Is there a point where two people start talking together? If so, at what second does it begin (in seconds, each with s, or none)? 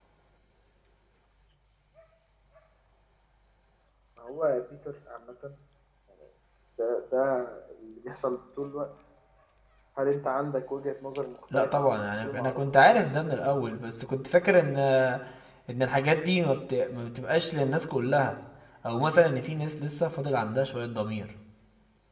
11.5 s